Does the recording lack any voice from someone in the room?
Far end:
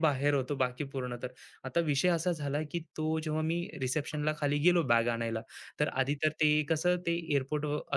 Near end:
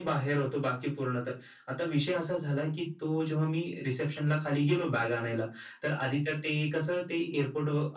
Yes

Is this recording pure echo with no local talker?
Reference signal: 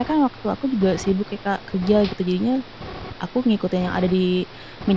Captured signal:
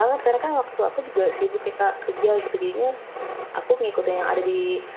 Yes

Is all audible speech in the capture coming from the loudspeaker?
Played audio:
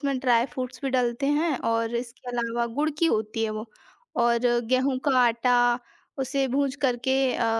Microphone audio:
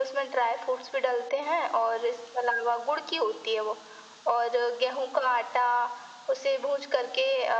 Yes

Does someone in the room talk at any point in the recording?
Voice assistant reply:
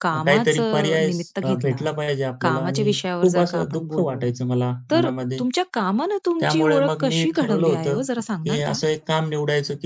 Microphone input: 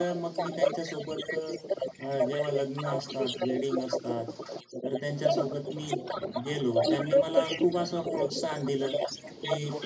Yes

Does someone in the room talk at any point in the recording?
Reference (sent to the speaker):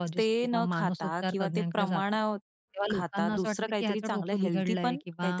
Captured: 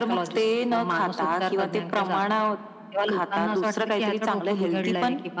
No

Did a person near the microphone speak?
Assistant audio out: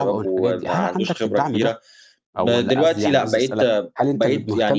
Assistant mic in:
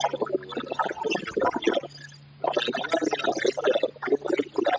No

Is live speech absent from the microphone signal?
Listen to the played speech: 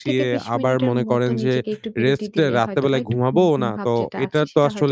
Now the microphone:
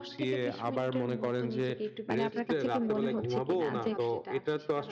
No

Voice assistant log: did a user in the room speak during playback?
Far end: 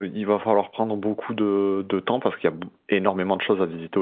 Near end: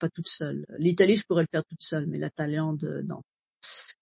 Yes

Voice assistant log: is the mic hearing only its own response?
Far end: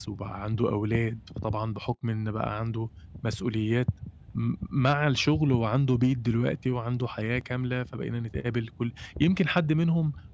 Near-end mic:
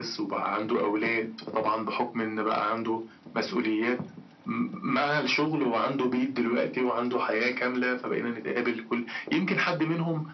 Yes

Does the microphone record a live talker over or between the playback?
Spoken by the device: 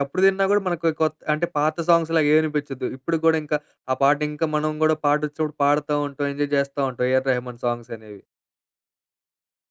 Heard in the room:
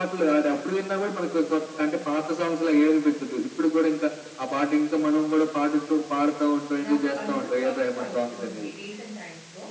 Yes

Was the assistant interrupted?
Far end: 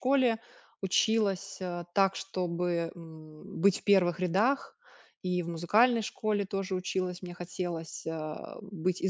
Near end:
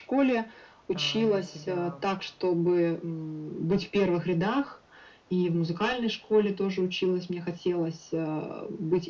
Yes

